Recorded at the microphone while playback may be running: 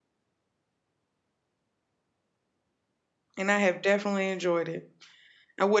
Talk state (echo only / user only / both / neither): user only